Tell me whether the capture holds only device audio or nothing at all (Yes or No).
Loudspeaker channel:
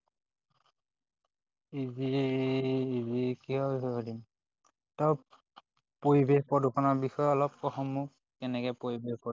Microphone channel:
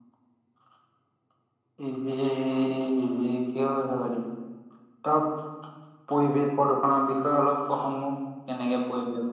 Yes